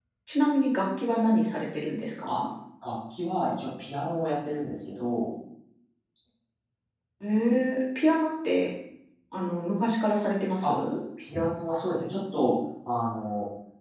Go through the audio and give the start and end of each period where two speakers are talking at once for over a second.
none

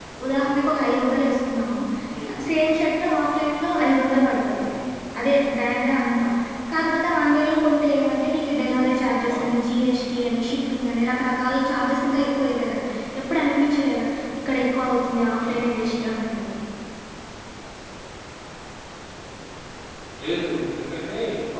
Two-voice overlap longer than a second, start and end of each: none

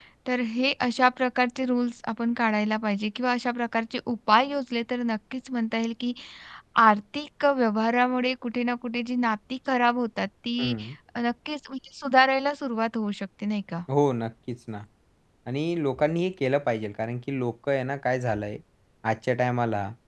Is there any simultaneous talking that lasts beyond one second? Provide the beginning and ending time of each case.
none

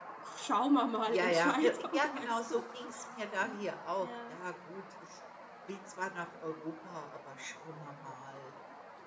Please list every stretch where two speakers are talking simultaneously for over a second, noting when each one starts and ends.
1.1-2.6

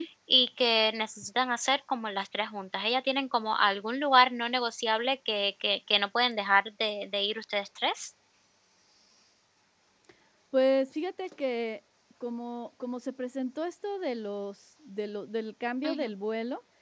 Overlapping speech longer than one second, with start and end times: none

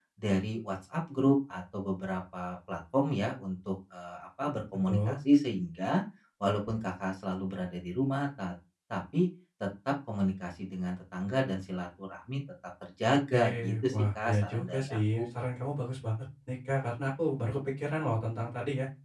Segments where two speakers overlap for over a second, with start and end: 13.1-15.2

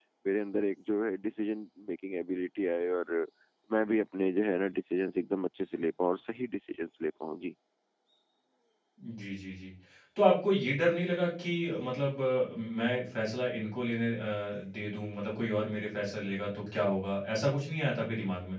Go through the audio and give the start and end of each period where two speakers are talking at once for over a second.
none

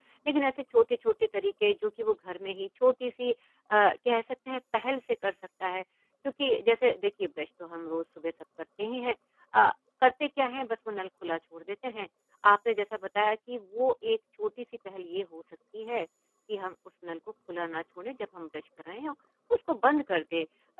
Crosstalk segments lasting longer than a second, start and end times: none

